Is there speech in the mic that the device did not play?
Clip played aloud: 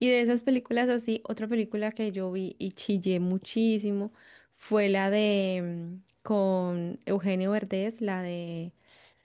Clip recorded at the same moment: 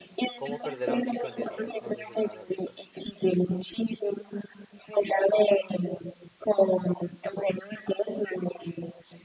Yes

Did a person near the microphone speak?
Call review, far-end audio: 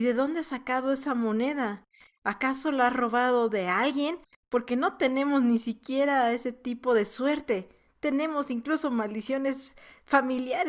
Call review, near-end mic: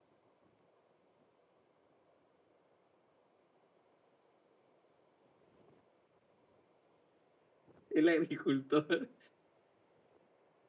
Yes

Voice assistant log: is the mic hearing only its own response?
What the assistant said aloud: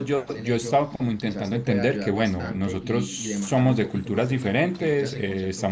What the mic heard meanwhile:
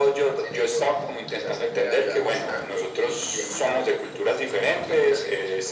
Yes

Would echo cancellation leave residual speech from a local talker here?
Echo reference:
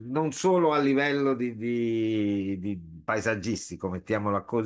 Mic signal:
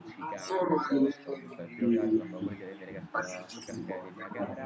Yes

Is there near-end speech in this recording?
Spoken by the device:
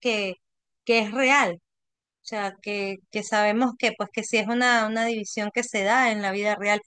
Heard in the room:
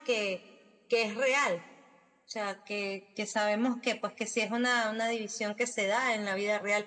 No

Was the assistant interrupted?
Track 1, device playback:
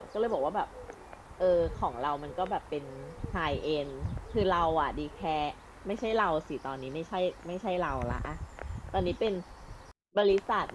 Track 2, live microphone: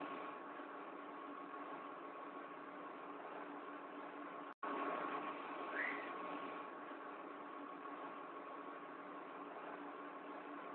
No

